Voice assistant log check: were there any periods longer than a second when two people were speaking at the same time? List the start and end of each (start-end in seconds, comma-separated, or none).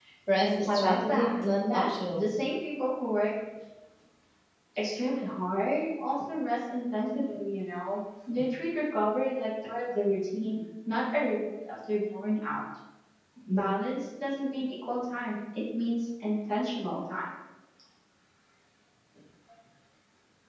0.7-2.2